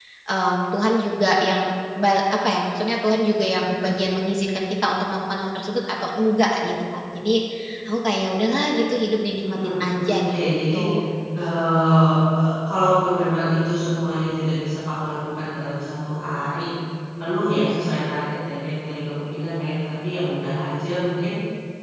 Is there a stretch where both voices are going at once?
Yes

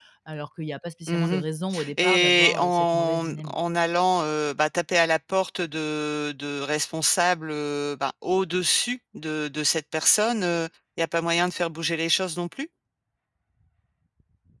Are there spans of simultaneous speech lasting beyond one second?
Yes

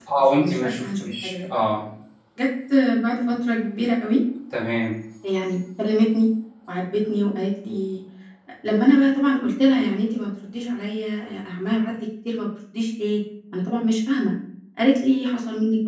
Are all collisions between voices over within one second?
No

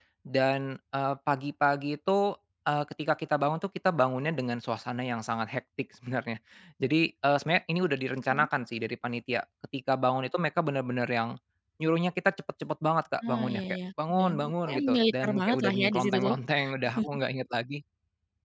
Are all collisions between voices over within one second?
No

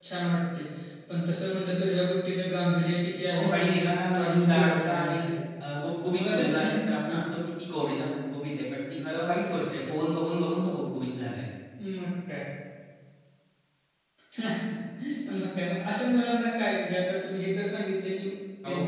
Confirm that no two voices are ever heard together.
No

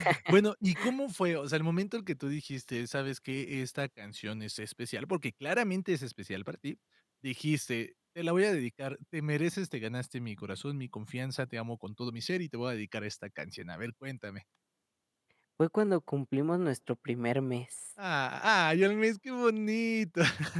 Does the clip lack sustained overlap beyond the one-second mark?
Yes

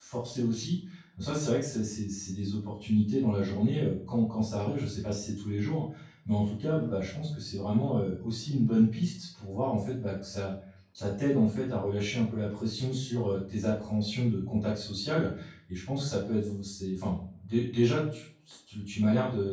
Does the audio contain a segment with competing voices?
No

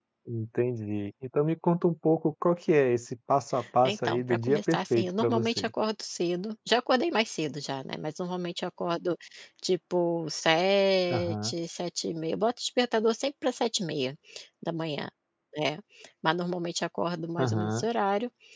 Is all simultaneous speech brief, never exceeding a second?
No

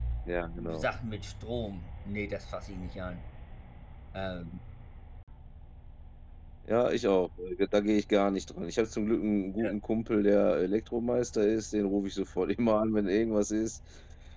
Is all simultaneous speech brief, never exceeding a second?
Yes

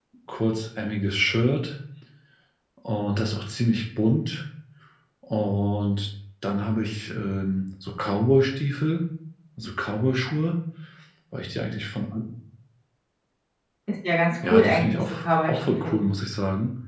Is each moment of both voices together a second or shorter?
No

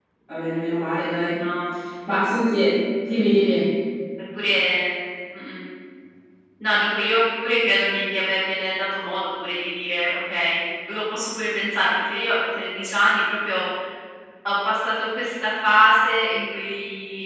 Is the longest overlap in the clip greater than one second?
No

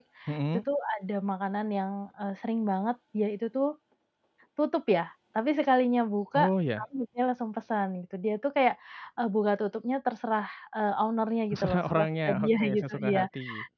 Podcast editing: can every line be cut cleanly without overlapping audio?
No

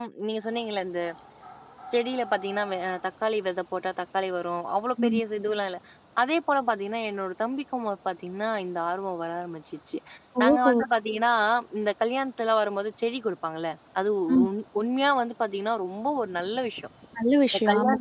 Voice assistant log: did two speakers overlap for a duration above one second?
No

